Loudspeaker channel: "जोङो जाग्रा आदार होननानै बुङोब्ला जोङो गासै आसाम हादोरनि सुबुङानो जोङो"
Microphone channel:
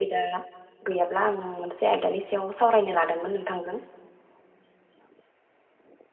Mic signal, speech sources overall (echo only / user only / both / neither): user only